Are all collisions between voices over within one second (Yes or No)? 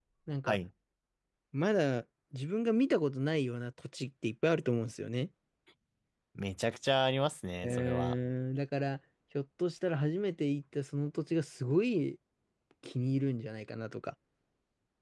Yes